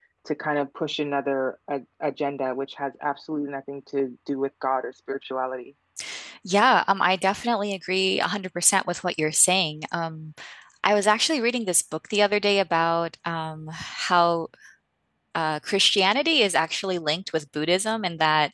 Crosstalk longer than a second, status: none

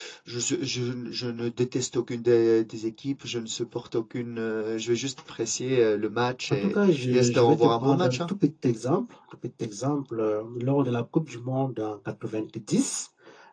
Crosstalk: present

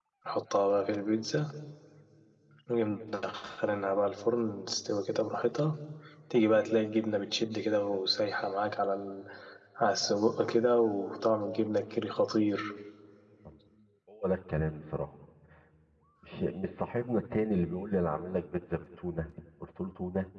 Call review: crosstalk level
none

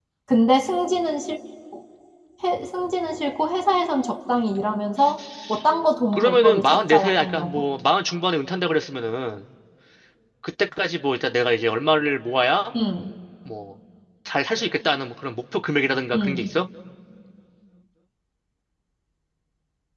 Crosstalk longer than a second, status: present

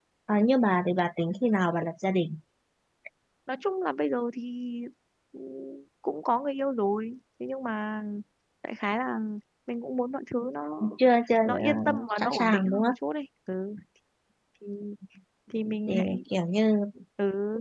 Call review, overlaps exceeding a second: present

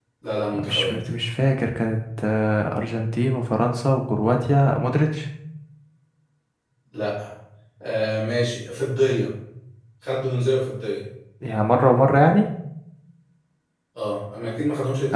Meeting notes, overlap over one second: none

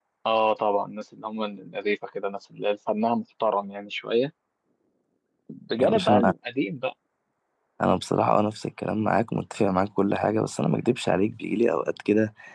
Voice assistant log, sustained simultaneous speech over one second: none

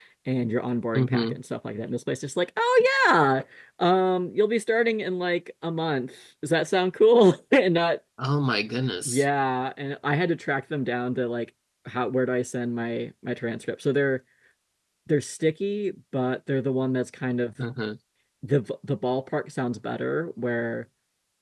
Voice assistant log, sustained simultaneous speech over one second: none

